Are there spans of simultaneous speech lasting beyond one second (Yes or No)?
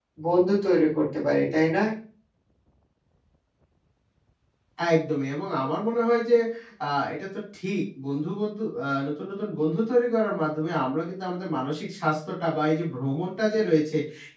No